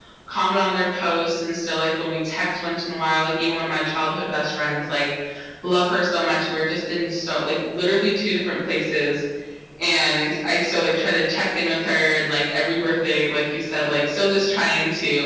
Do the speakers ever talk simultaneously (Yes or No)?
No